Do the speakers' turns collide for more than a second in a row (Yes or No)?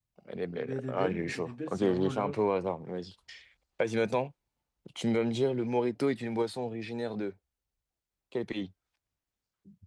Yes